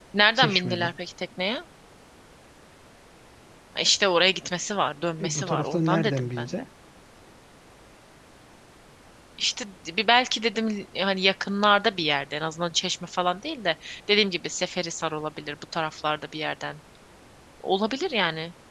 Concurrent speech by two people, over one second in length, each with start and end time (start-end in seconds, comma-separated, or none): 5.2-6.6